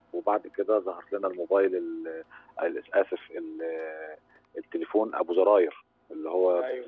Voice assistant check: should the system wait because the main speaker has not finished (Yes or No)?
Yes